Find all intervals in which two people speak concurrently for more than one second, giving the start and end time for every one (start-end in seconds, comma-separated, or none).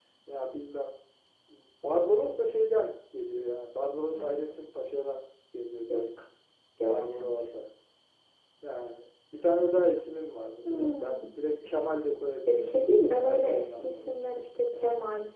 12.5-14.3